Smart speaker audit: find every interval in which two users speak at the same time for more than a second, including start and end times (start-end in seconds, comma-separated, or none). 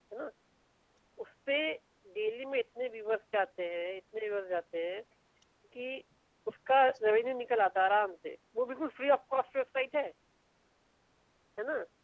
none